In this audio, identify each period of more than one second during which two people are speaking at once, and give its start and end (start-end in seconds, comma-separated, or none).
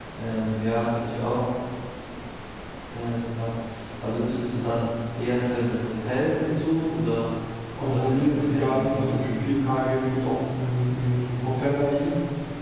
7.8-9.5